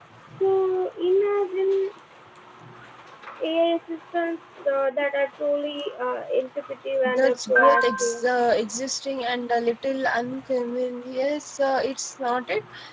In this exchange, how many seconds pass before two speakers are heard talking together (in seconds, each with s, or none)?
7.0 s